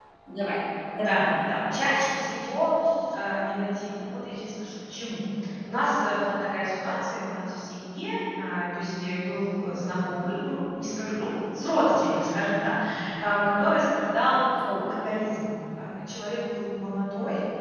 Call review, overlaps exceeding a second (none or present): none